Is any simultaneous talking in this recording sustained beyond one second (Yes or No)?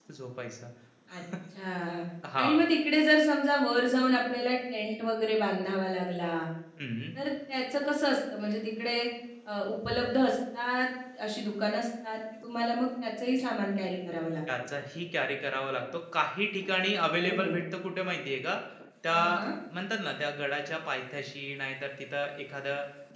No